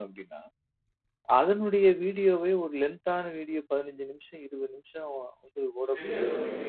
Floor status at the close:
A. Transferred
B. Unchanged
A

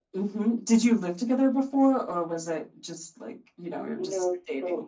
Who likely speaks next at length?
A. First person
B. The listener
B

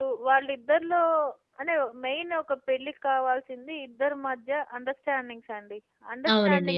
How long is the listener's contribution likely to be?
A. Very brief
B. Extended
A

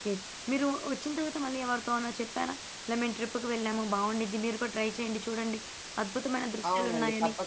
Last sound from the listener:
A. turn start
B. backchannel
A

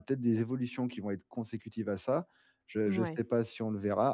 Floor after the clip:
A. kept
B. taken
A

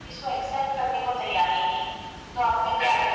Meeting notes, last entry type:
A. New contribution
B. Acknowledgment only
A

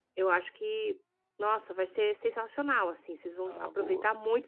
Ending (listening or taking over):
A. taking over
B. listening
B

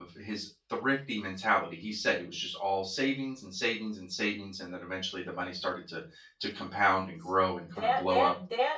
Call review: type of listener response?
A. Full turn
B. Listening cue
A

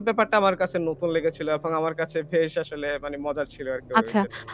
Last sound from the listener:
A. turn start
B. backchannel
A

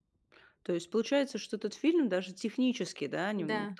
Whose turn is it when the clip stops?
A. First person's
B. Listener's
A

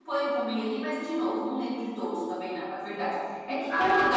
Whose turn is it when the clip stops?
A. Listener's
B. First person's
B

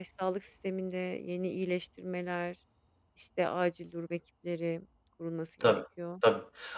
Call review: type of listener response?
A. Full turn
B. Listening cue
A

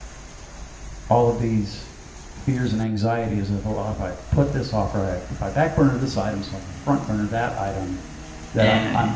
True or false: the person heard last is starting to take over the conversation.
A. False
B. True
A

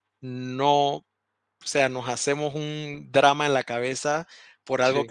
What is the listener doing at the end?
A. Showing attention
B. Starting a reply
A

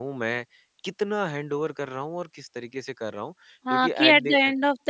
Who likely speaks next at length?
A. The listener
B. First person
A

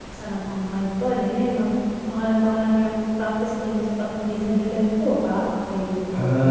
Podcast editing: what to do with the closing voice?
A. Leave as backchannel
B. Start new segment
B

